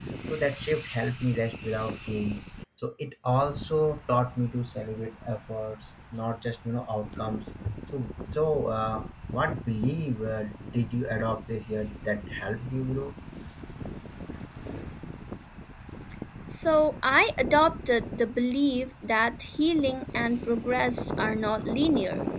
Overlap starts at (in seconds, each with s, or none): none